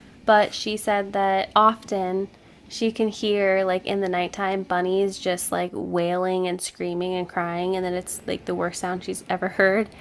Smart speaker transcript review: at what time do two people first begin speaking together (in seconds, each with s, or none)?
none